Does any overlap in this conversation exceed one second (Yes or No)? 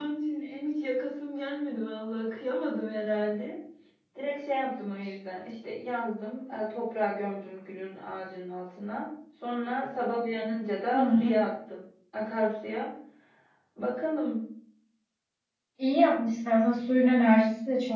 No